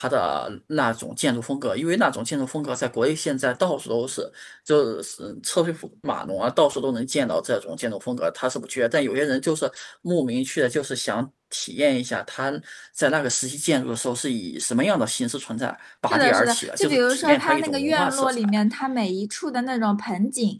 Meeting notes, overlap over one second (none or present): present